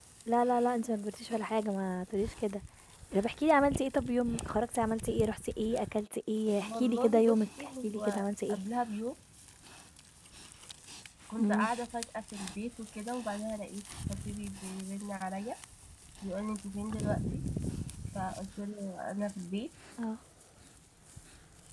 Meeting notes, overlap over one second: present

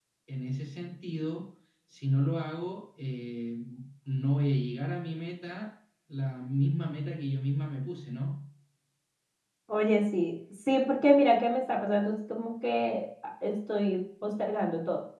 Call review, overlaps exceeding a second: none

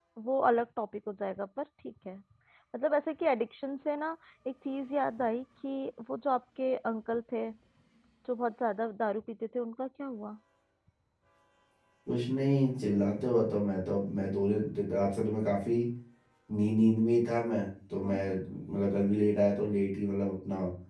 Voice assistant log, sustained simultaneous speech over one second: none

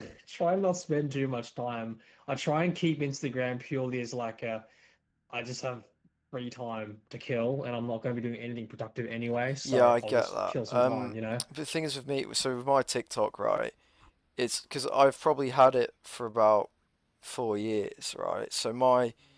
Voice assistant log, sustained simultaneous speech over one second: present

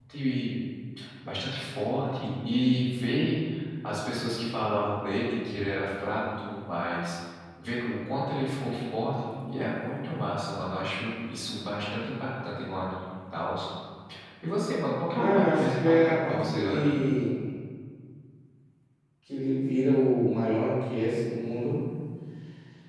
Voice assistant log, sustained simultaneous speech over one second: present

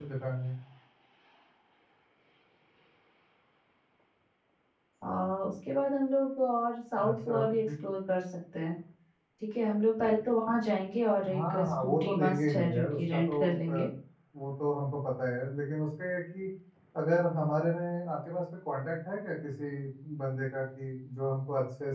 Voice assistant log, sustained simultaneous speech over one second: present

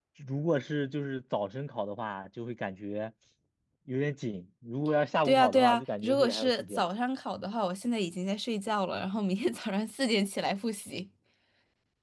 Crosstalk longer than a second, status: present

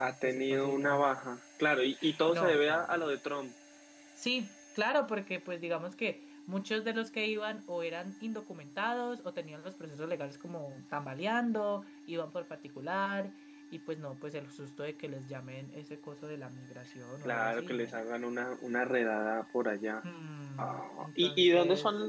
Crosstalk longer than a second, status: present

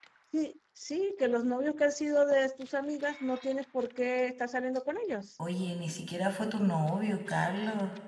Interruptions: none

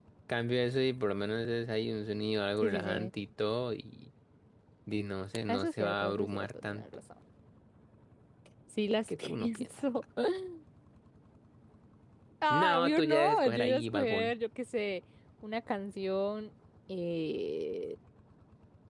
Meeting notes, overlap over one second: present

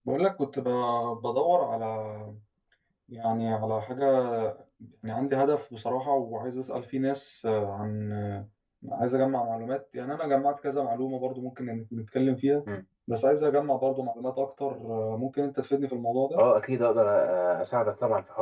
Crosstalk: none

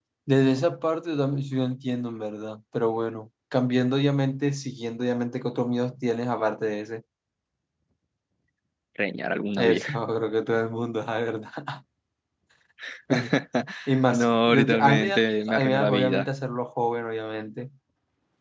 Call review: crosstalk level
present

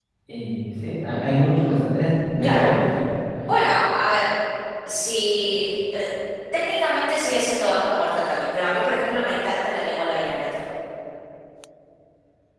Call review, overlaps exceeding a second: none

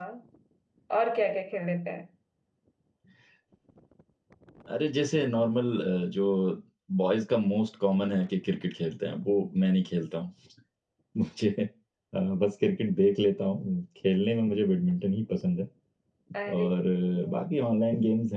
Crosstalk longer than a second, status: none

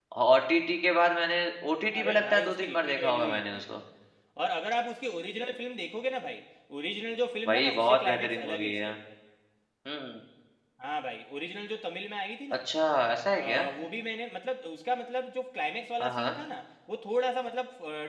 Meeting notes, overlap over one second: present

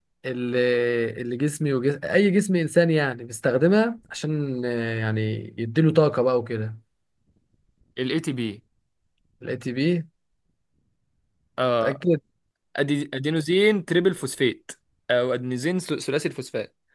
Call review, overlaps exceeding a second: none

